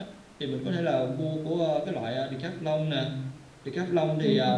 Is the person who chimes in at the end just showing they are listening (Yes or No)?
Yes